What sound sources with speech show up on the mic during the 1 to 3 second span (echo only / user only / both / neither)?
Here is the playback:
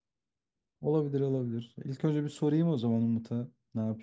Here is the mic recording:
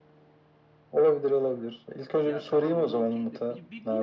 both